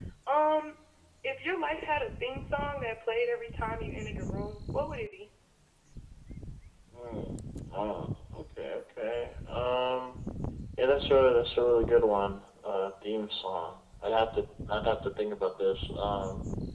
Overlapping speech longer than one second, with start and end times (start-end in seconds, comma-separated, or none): none